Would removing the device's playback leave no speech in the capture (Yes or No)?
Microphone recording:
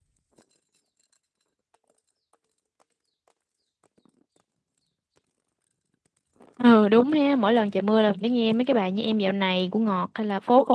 No